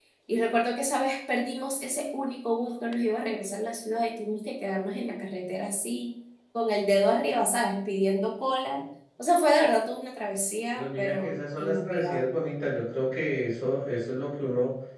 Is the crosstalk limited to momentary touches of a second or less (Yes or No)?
No